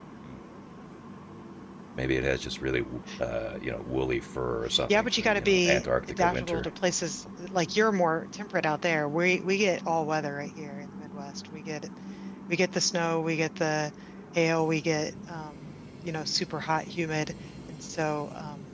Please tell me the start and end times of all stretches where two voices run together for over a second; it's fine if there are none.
4.9-6.7

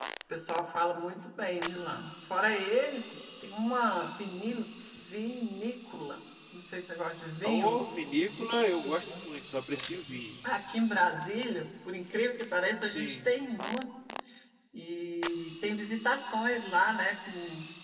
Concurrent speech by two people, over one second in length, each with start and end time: none

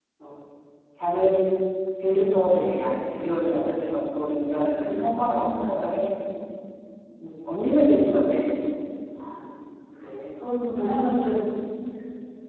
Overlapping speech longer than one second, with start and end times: none

